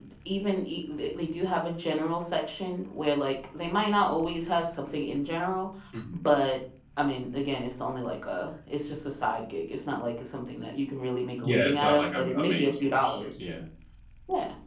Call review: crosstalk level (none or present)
present